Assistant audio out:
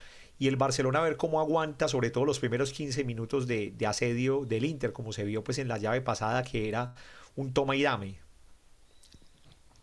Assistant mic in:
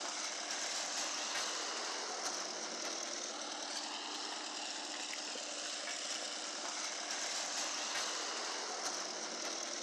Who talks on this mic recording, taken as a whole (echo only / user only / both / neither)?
neither